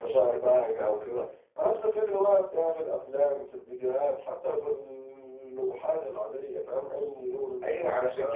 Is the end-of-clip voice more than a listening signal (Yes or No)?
Yes